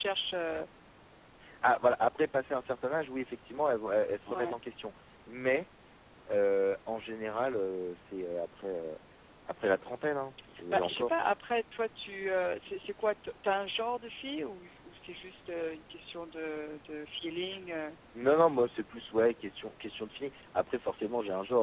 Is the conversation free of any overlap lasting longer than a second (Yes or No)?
Yes